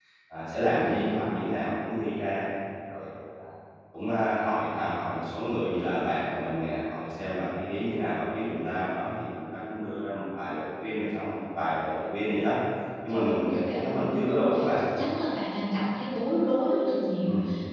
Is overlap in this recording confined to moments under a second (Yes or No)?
No